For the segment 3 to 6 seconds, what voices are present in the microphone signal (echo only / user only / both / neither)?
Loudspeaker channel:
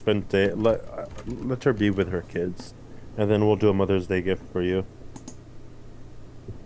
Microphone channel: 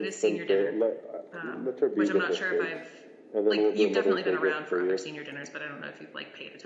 both